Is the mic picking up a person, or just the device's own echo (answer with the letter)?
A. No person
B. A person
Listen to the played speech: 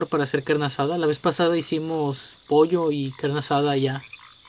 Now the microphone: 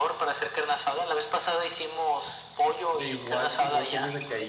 B